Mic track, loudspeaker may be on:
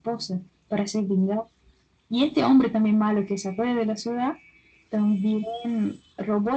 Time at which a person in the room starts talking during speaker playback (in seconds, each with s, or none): none